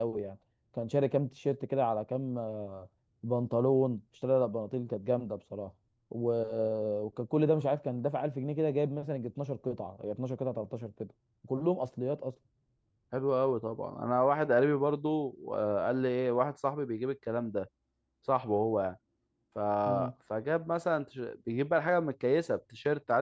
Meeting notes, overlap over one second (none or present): none